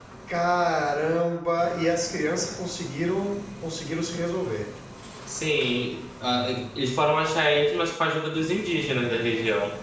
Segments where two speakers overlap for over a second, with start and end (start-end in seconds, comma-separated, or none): none